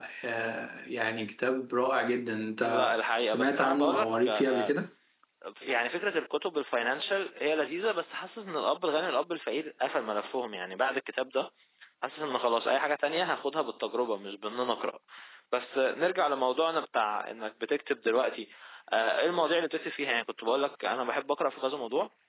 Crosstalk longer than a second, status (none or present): present